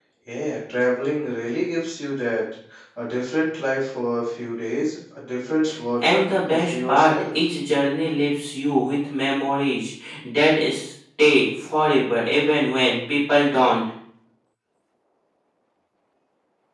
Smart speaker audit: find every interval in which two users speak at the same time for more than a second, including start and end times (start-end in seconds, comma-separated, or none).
6.0-7.4